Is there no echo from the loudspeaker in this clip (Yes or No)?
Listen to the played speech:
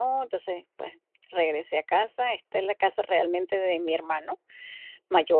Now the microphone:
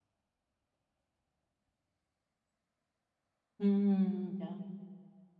Yes